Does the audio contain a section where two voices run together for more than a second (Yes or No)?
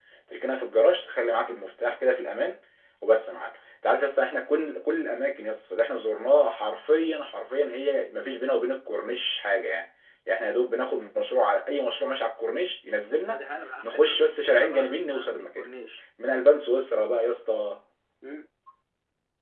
Yes